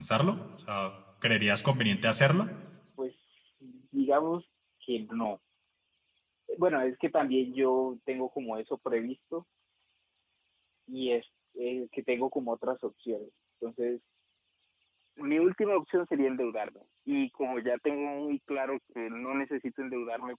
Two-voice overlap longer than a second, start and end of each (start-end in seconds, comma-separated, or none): none